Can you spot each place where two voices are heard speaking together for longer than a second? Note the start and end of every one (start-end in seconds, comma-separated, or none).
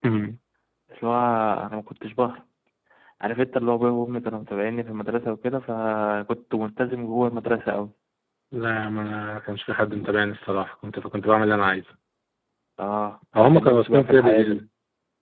13.3-14.6